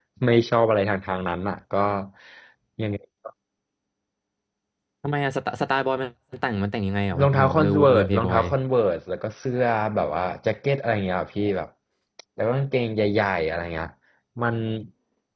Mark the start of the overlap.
7.1 s

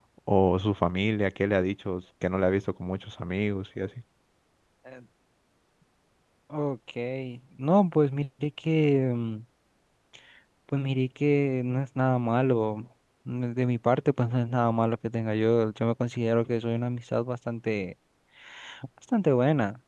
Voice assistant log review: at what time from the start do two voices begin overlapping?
none

